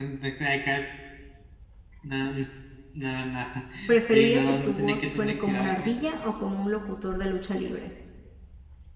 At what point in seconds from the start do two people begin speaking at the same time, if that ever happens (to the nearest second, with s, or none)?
4 s